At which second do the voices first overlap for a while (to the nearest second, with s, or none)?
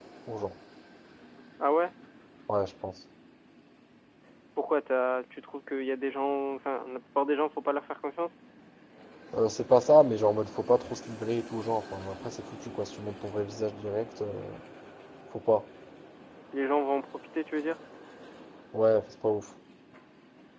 none